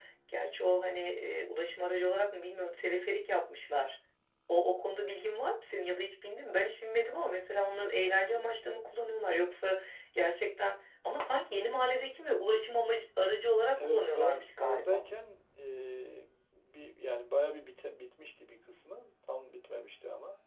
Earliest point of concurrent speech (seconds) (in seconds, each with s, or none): 13.8 s